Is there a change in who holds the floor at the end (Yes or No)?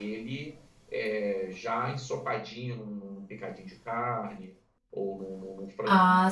No